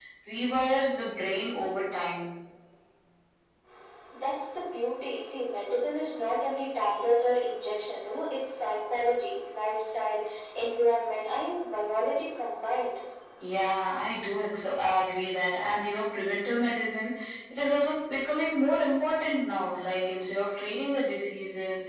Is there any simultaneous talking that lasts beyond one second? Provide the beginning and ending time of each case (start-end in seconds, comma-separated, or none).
none